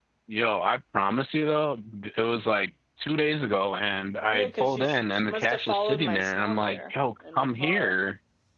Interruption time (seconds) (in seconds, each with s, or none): 4.2 s